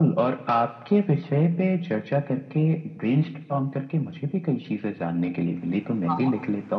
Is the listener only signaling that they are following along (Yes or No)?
Yes